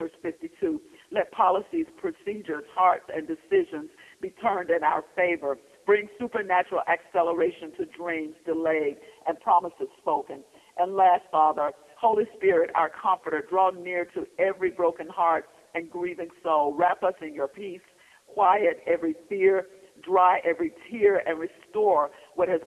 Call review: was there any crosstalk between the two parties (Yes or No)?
No